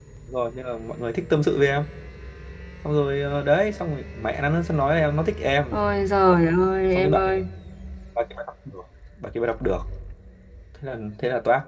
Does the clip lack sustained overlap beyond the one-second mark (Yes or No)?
Yes